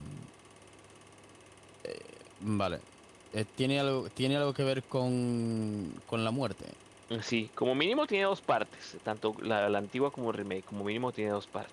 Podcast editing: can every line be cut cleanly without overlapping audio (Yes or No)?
Yes